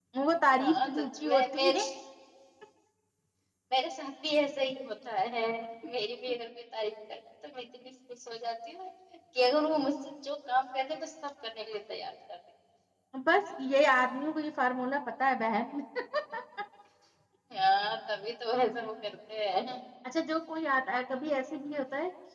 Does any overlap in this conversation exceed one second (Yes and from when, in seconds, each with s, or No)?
Yes, from 0.6 s